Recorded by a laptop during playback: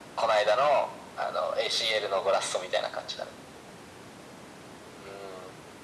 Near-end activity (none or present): none